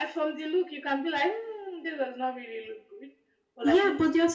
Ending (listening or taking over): taking over